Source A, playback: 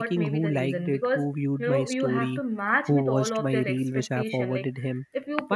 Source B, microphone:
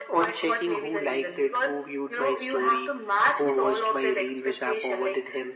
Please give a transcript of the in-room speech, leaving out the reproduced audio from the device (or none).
none